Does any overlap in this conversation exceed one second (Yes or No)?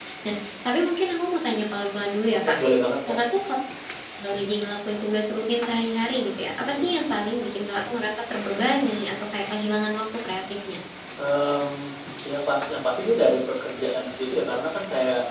No